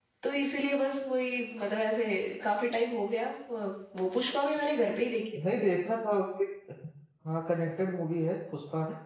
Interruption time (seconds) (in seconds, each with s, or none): none